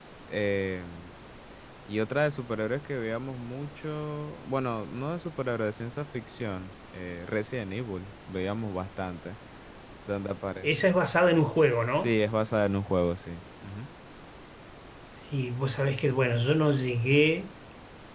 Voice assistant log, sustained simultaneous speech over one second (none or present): none